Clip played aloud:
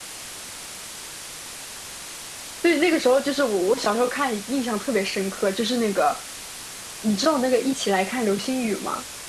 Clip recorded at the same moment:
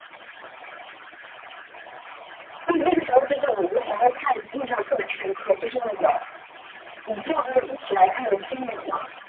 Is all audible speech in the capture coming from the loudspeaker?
Yes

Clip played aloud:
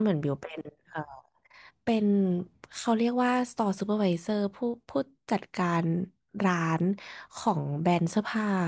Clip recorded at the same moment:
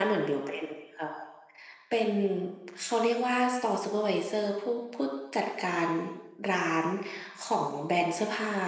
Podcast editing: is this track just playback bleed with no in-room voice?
Yes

